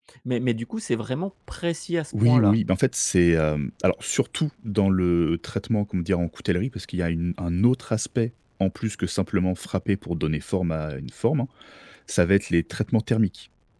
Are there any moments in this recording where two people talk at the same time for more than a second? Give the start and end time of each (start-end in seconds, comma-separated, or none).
none